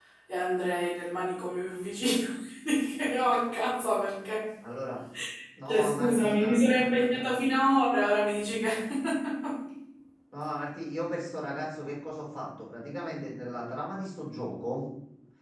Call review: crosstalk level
present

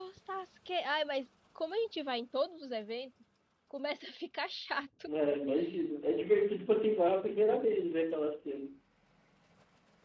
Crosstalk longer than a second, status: none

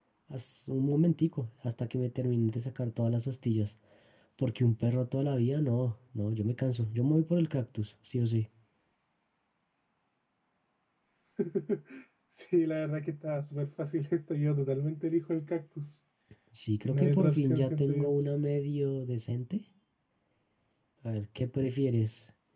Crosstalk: present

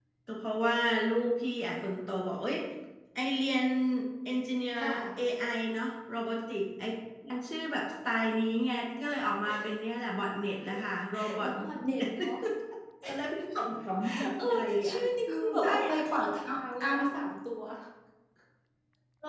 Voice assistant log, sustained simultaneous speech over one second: present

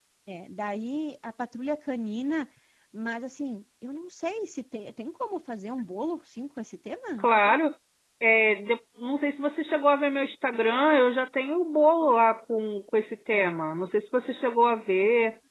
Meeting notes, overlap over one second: none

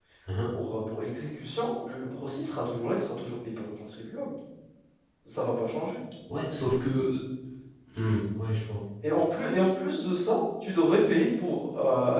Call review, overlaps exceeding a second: none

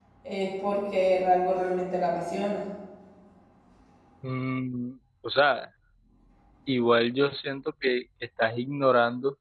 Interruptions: none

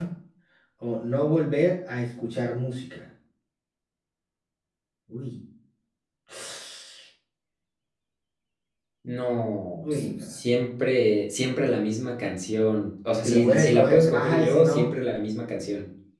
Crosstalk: present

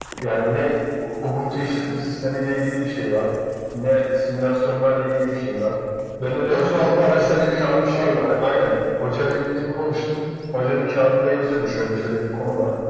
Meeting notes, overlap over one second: present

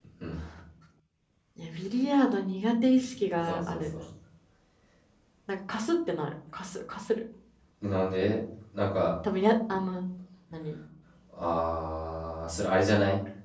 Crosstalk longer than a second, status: none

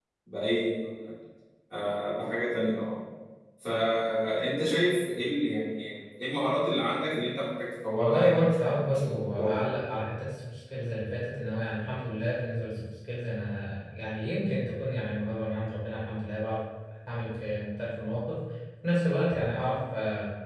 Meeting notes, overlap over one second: present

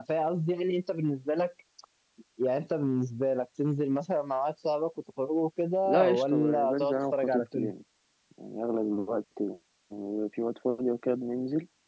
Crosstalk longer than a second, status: present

